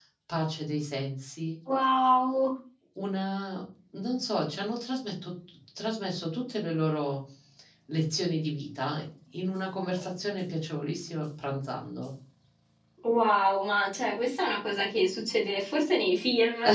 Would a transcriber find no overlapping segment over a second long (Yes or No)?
Yes